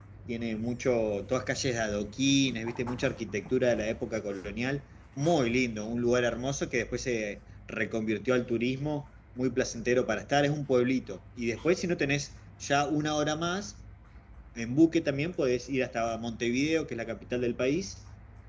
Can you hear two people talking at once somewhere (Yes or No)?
No